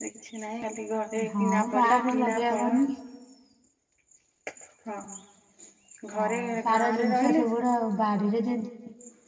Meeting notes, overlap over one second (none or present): present